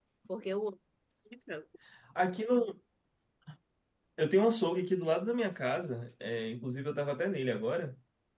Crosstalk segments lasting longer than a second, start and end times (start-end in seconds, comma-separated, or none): none